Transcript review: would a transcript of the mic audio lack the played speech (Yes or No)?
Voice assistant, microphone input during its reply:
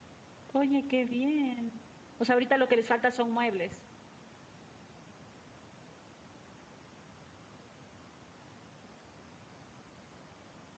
Yes